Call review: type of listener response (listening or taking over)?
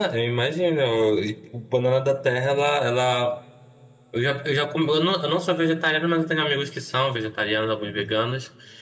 listening